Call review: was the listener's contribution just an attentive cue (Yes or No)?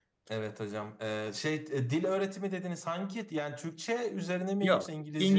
No